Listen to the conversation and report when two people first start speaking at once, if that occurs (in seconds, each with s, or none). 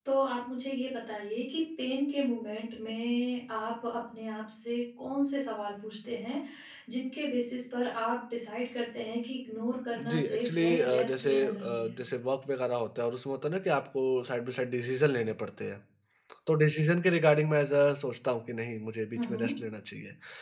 10.0 s